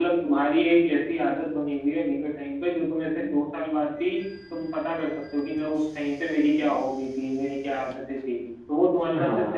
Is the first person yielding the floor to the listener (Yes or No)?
Yes